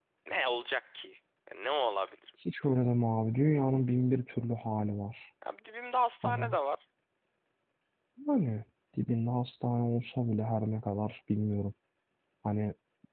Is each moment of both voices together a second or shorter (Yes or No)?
Yes